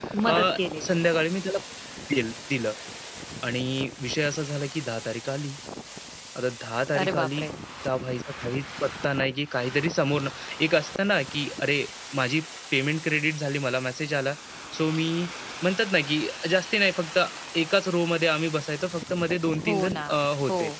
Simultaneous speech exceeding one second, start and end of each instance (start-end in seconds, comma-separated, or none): none